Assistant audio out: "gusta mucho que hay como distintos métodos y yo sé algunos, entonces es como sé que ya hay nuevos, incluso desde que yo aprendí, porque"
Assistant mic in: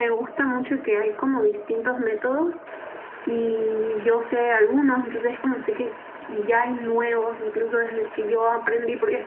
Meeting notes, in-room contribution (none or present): none